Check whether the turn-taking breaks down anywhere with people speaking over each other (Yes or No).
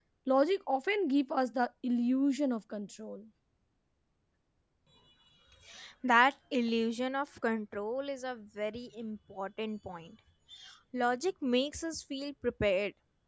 No